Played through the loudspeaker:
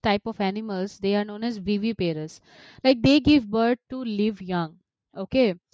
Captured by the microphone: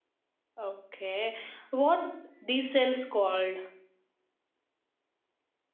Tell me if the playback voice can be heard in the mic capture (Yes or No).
No